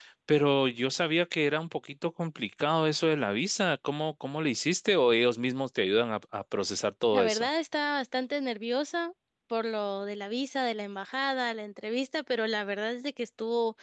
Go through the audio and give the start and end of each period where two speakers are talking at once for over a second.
none

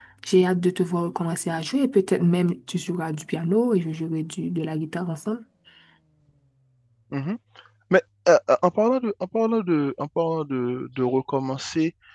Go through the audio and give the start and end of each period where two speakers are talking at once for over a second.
none

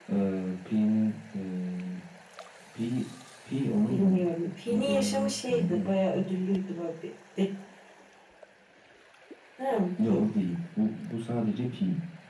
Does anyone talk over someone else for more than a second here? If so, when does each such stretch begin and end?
4.6-5.9

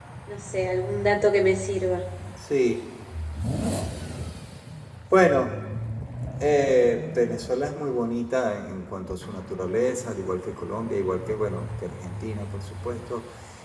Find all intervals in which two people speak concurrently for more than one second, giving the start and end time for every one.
none

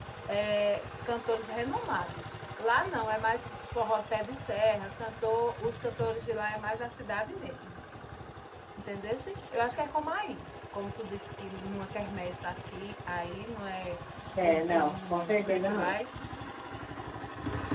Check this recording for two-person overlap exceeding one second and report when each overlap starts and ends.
14.4-15.9

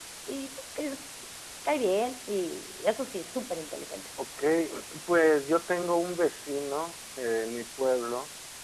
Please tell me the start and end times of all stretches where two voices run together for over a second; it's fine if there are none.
none

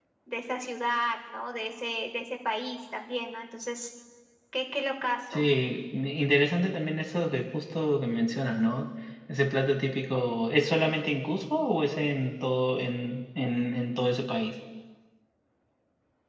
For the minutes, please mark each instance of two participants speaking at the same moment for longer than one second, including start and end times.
none

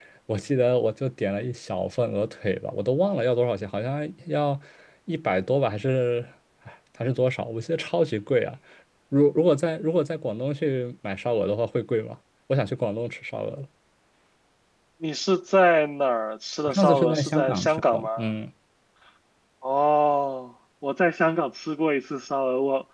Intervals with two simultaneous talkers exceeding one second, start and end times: 16.8-18.1

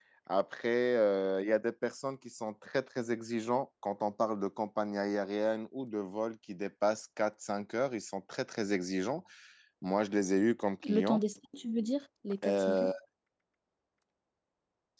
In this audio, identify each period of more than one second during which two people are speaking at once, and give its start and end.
none

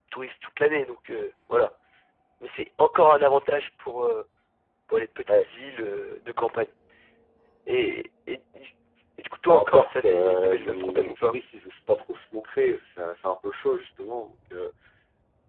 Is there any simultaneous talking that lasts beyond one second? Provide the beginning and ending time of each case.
9.5-11.3

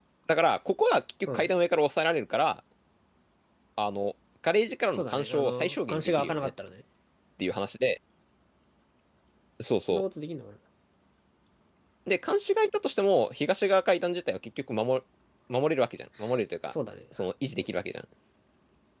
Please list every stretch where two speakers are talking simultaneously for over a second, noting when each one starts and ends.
5.0-6.5

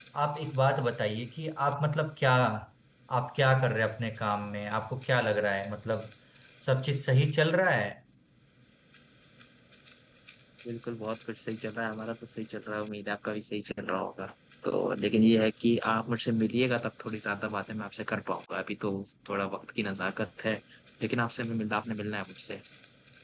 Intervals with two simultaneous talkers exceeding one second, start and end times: none

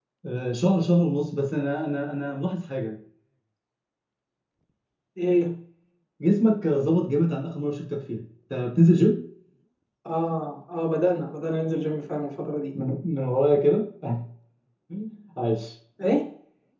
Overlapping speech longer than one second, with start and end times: none

